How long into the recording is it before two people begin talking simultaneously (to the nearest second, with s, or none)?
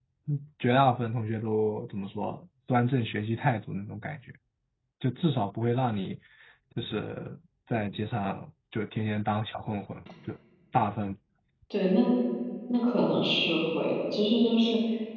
none